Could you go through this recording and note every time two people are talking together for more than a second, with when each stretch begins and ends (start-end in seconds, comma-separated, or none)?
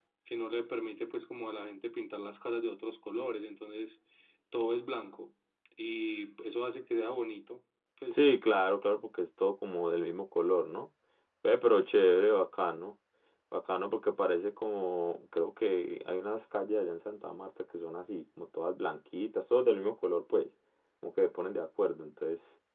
none